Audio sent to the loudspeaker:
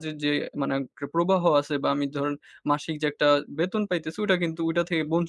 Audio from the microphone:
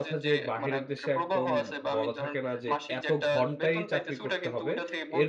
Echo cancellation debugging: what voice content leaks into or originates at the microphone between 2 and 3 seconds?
both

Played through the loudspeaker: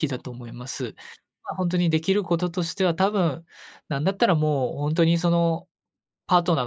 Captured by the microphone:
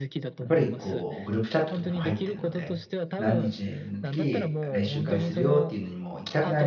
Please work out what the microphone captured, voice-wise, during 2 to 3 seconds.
both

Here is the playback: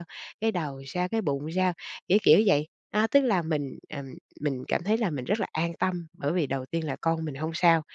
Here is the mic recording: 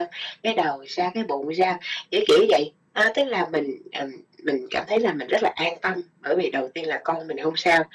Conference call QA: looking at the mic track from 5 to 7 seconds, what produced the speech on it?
echo only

